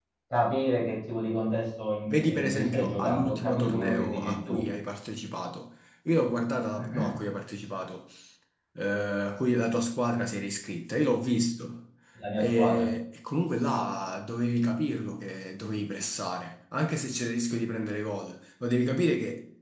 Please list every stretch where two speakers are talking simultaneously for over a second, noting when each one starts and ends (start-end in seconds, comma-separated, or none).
2.1-4.6